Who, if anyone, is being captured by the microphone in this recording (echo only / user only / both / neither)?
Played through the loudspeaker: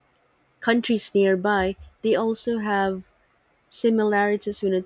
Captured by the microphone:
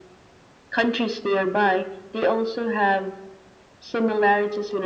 echo only